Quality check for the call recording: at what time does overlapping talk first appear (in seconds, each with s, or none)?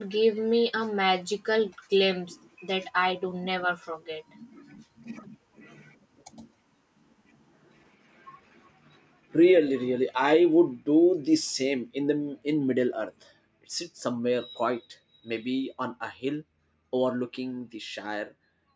none